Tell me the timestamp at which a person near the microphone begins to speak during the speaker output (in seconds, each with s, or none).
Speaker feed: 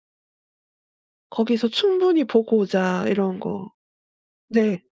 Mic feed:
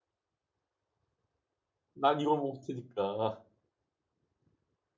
1.9 s